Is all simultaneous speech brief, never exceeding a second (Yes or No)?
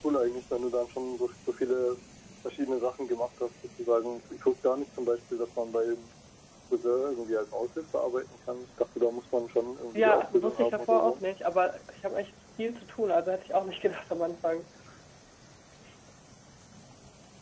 No